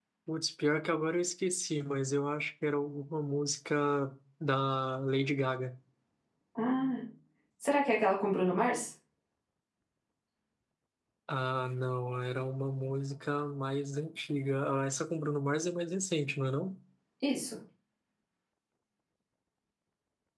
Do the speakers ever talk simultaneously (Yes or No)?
No